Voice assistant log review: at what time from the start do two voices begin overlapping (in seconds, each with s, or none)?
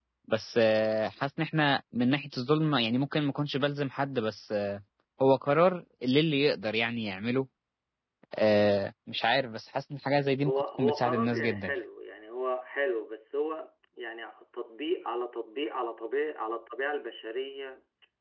10.4 s